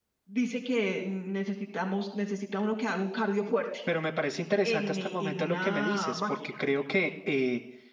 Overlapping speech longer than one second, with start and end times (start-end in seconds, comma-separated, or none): 4.6-6.6